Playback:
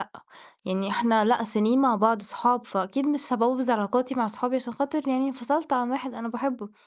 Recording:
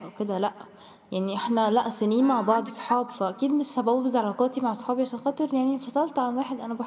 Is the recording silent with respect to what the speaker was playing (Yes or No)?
No